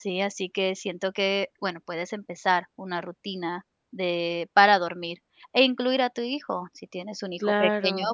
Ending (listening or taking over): listening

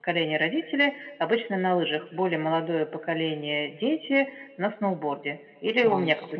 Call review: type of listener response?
taking over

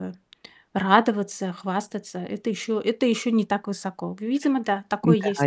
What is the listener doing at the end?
taking over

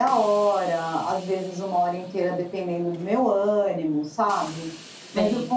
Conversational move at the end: listening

